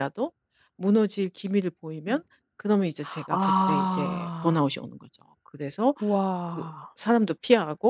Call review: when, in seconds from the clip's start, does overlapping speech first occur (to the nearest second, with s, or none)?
3 s